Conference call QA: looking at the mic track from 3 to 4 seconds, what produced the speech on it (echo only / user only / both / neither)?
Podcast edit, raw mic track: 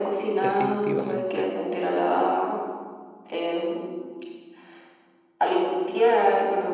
echo only